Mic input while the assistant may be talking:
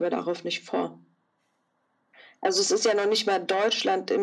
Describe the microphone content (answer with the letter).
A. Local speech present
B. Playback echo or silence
B